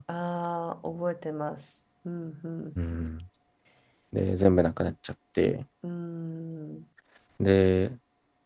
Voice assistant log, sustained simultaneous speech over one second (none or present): none